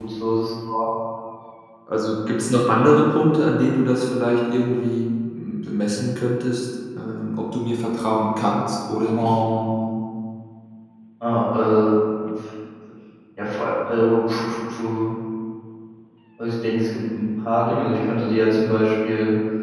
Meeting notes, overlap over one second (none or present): none